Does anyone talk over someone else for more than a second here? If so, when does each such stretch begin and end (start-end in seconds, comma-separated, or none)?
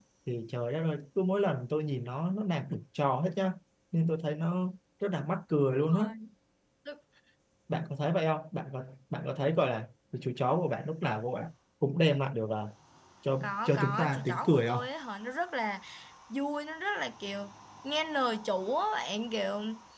13.4-14.9